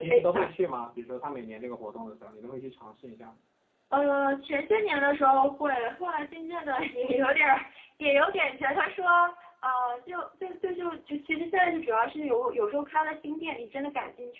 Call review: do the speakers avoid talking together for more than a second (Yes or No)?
Yes